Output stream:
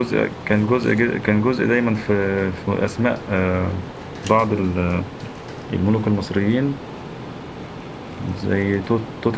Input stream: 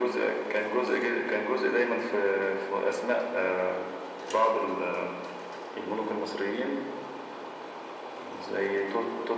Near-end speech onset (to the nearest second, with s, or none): none